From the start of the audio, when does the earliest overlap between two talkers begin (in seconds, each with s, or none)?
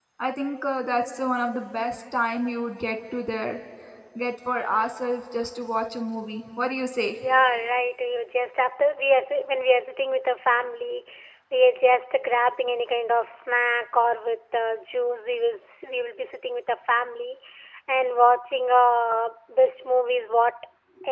none